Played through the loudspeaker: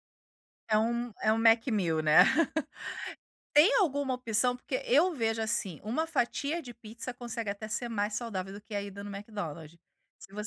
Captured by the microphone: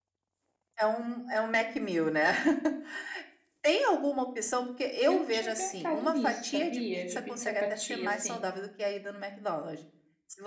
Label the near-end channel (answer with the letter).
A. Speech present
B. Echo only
A